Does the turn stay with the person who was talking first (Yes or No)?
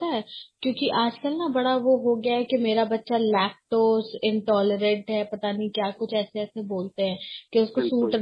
Yes